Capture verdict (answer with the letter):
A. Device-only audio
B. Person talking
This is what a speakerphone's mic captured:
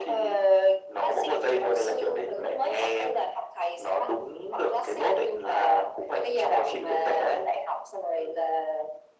A